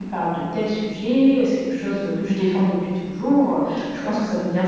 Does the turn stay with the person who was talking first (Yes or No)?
Yes